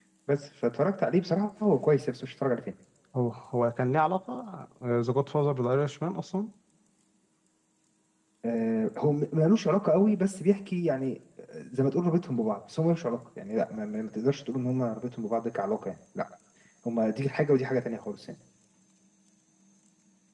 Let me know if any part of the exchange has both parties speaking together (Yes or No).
No